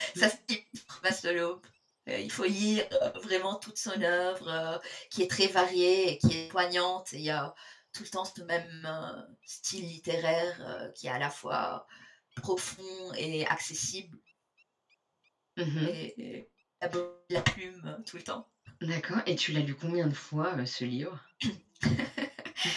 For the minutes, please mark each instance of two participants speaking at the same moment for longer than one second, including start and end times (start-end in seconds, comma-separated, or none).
none